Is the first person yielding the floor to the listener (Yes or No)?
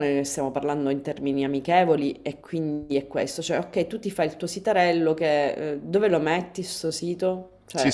Yes